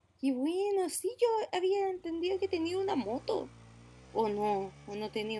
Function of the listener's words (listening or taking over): taking over